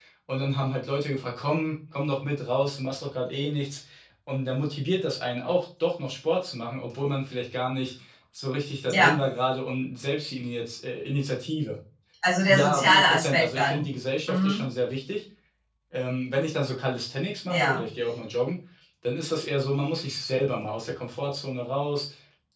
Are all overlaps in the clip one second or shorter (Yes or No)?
No